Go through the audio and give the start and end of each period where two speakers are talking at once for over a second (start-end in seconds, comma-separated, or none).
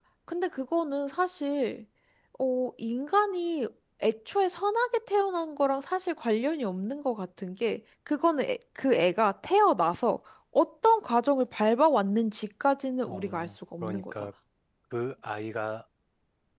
13.0-14.3